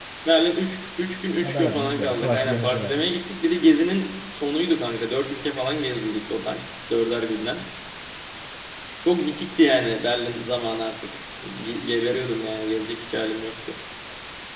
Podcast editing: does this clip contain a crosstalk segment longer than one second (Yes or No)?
Yes